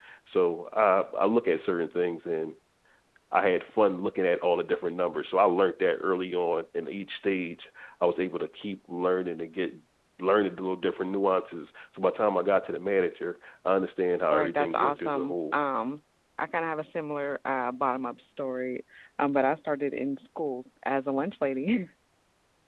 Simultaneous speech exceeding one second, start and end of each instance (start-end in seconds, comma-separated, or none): 14.3-15.6